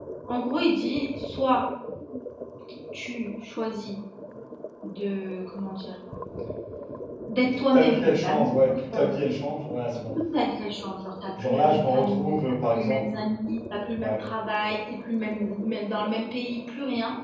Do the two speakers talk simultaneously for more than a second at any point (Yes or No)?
Yes